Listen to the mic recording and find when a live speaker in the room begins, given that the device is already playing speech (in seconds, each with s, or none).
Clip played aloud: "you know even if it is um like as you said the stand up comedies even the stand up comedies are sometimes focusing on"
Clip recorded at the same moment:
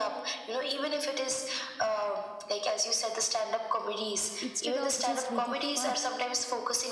4.4 s